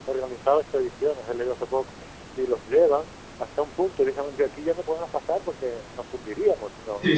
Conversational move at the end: listening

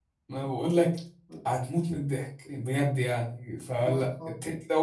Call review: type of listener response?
listening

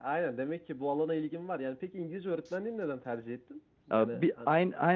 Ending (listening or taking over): taking over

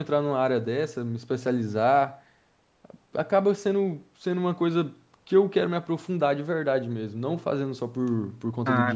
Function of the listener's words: taking over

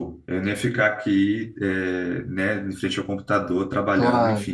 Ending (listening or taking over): listening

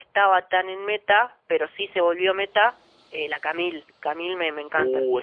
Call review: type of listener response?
taking over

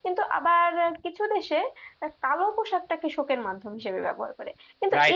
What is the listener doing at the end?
taking over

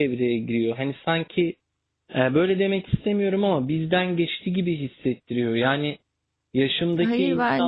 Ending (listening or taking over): listening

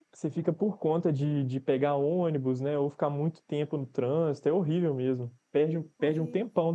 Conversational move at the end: listening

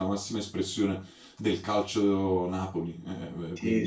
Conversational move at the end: taking over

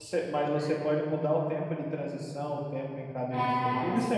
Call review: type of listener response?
taking over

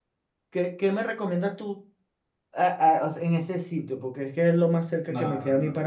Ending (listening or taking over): taking over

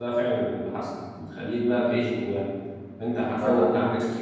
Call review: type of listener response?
listening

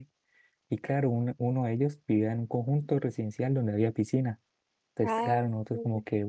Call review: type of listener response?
listening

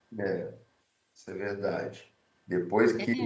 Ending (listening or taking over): listening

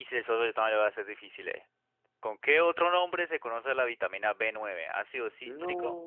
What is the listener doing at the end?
listening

